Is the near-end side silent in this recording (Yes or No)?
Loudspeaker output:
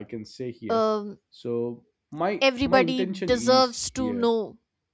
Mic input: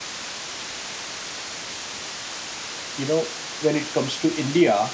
No